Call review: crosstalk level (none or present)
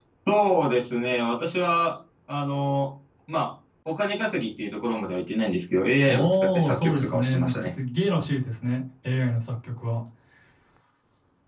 present